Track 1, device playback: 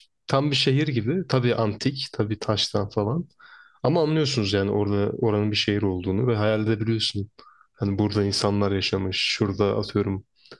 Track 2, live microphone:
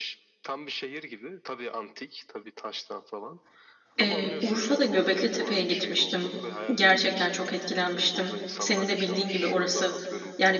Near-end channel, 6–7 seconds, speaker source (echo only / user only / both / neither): both